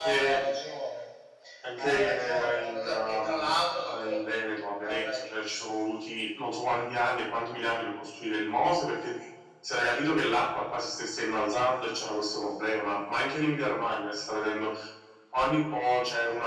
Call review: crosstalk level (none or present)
present